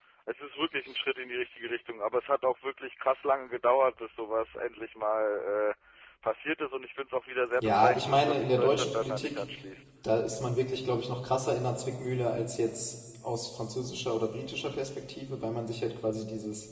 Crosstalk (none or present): present